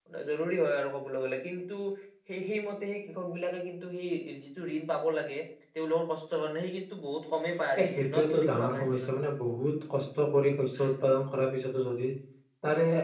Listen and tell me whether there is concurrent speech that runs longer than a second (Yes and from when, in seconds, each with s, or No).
Yes, from 7.8 s